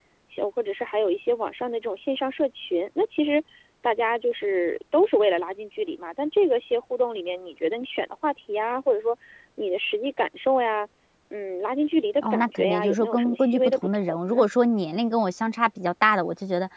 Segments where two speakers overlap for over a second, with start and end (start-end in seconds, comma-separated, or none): 12.2-14.4